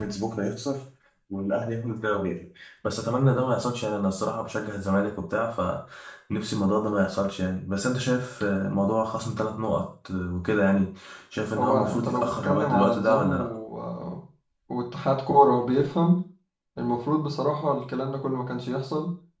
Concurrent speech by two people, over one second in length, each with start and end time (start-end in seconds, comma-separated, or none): 11.6-13.5